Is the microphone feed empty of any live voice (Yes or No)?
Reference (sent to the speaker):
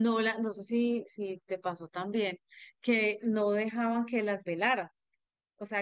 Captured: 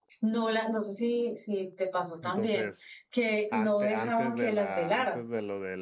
No